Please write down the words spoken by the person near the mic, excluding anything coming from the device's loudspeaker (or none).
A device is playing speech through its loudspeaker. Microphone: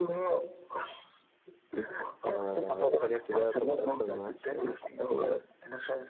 فتانية ابتدائي يعتبر أصلا ما عادش